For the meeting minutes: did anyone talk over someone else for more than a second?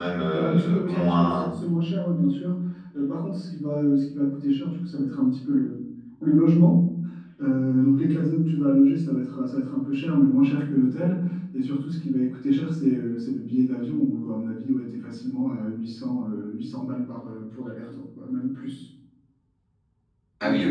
Yes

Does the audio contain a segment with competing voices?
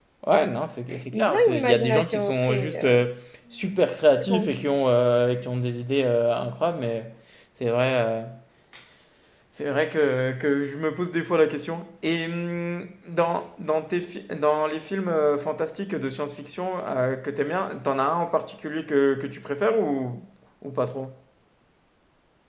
Yes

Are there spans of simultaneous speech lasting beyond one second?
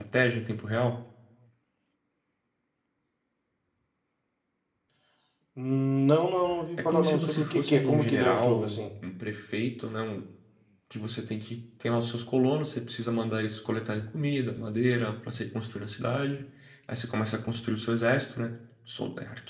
Yes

